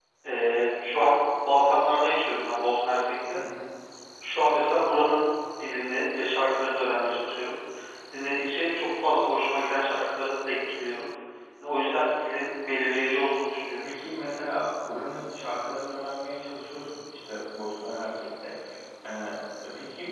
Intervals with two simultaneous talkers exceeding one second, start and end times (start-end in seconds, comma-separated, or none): none